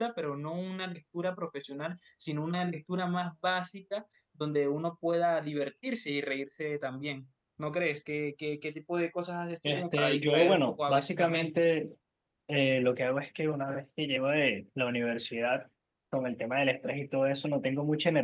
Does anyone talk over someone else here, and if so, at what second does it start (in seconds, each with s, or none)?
9.6 s